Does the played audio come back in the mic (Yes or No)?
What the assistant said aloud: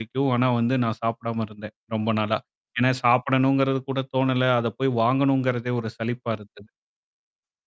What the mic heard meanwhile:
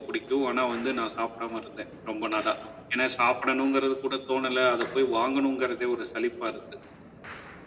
Yes